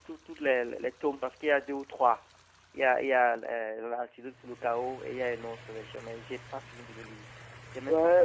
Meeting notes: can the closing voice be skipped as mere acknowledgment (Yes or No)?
No